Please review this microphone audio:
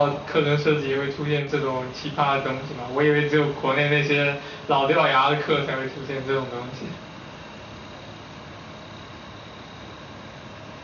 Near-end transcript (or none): none